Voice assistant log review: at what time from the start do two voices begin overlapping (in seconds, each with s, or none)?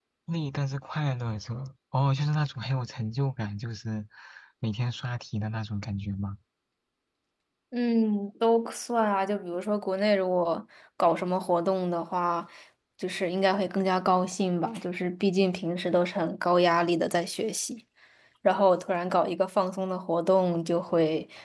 none